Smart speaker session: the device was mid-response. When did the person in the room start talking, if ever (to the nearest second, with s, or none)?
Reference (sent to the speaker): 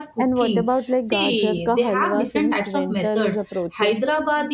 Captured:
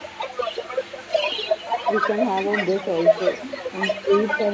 2 s